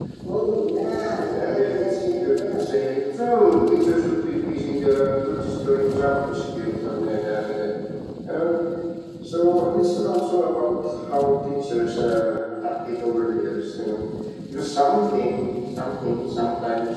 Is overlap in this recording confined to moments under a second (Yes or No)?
No